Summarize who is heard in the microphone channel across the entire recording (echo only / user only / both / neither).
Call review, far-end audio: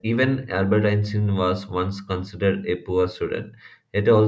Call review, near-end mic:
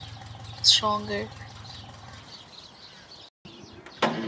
user only